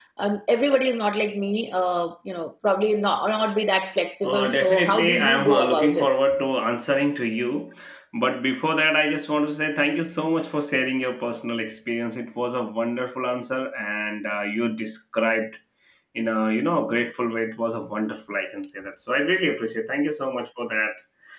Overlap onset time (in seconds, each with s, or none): 4.2 s